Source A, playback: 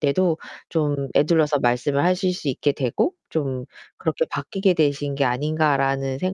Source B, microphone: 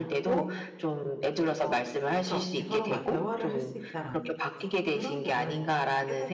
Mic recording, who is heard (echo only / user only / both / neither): both